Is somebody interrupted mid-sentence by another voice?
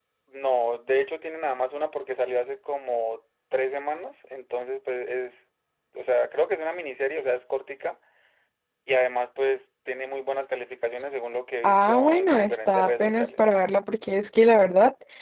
Yes, from 11.6 s

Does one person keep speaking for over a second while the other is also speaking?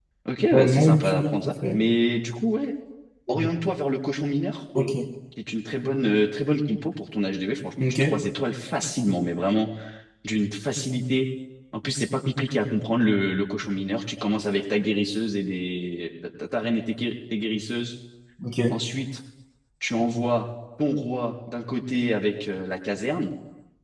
Yes, from 0.5 s

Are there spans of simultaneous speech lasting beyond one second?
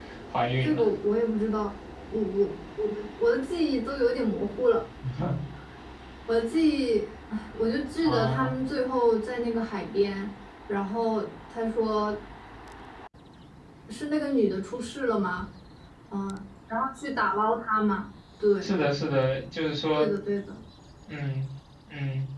No

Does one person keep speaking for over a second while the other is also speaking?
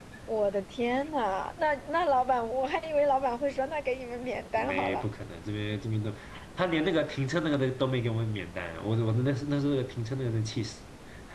No

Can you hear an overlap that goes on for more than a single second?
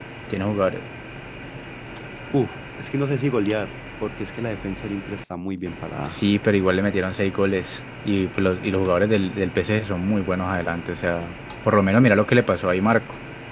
No

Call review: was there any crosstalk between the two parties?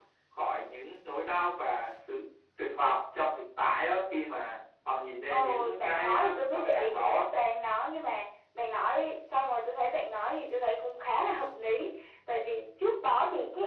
Yes, from 5.3 s

